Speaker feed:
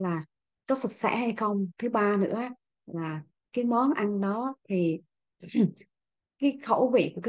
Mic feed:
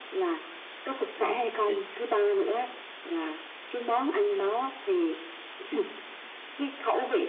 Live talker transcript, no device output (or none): vâng thì,